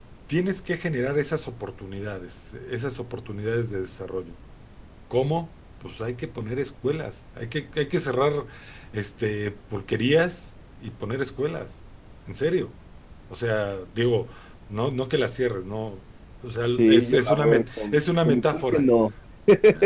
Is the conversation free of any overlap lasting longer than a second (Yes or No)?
No